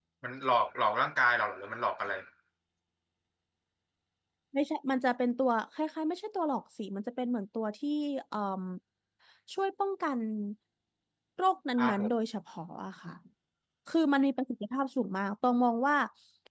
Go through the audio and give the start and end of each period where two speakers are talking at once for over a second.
none

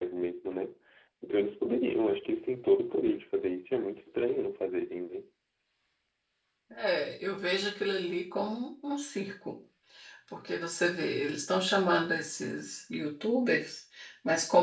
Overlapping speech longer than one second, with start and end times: none

